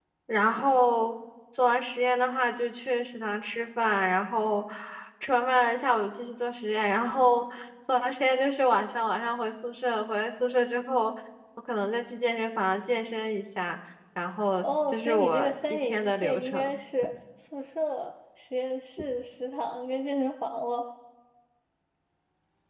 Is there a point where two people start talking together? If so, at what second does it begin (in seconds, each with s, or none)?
14.9 s